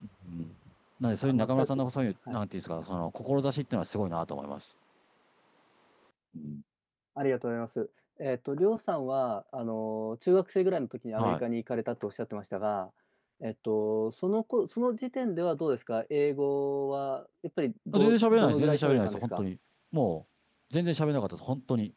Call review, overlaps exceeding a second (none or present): present